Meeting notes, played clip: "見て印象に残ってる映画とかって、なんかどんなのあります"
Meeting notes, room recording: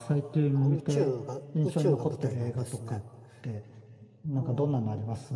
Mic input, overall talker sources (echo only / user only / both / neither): both